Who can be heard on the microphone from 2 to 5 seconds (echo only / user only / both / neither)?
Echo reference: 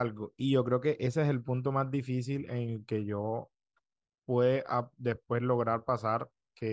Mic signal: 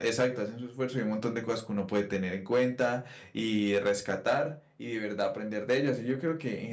user only